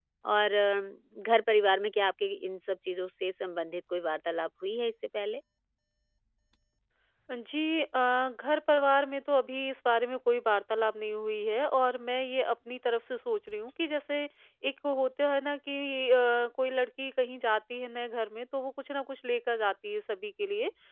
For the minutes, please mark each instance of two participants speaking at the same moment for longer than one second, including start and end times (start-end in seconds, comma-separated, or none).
none